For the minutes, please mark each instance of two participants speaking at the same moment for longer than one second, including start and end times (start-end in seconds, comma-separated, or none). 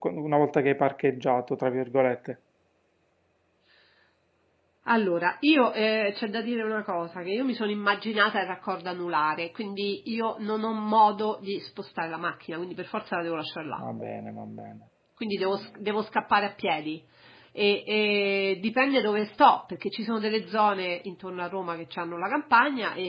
none